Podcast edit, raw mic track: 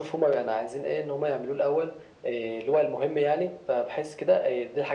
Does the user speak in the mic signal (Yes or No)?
No